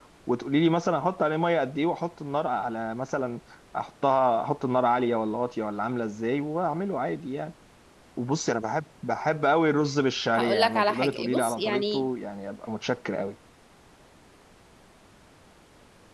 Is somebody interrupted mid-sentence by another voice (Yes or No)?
Yes